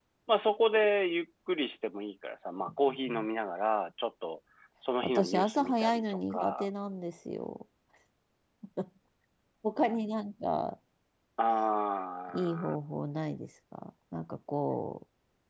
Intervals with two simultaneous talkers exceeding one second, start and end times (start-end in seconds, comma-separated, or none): 5.0-6.7